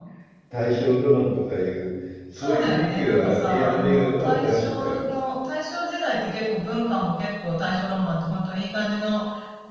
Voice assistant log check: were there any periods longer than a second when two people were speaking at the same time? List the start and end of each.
2.4-5.0

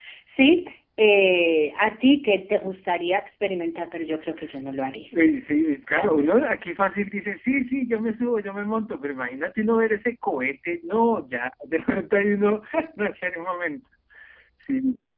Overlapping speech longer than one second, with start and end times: none

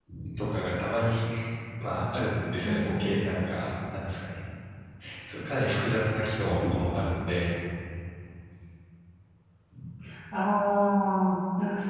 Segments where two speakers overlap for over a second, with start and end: none

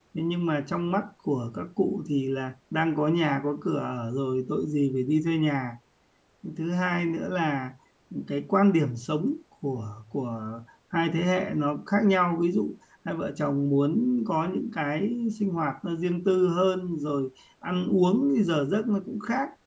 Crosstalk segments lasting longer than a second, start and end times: none

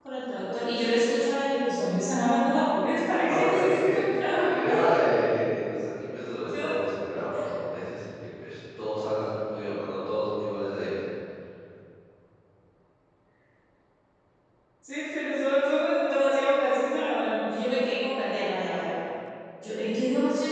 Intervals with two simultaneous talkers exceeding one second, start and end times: 3.3-4.9

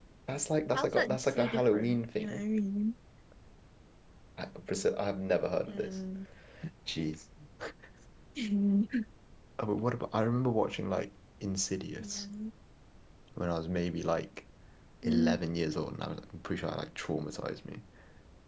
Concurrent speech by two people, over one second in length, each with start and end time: 0.7-2.4

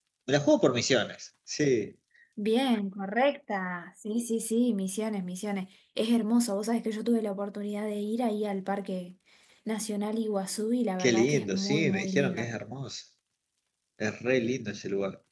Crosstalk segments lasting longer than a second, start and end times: 11.0-12.5

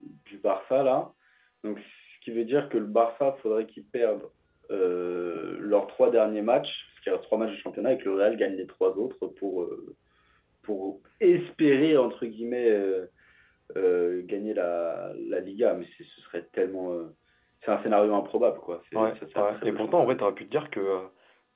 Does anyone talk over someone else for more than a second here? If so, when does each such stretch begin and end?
18.9-20.3

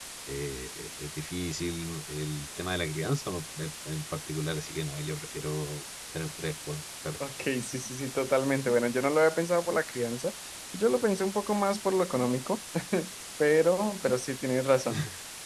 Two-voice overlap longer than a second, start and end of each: none

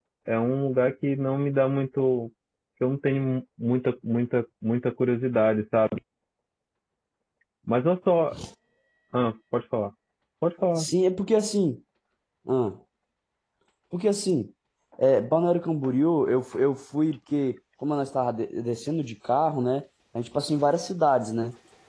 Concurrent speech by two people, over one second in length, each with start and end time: none

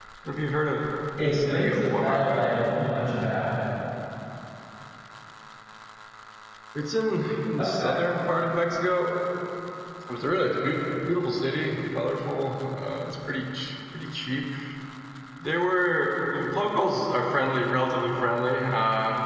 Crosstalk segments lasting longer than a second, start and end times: 1.2-2.5

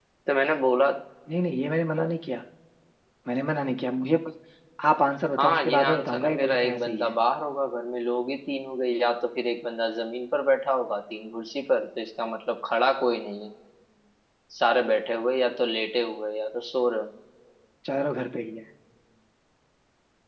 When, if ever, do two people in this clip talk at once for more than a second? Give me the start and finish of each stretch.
5.4-7.1

